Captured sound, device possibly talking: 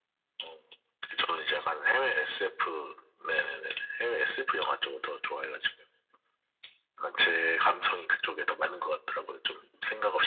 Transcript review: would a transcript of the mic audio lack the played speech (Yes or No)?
No